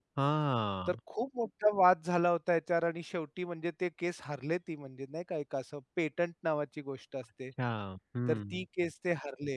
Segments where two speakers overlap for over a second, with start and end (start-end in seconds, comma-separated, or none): none